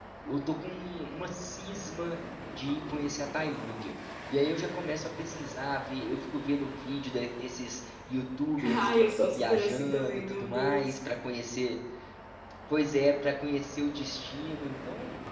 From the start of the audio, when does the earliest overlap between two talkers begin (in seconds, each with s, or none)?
8.6 s